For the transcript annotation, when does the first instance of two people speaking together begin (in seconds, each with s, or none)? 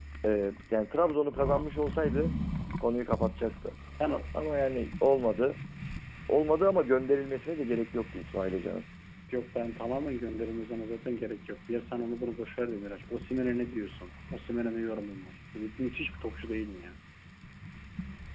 none